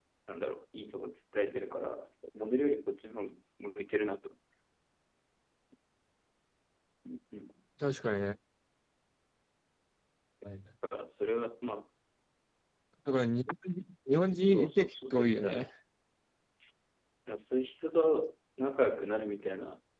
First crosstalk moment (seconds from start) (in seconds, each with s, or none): 14.5 s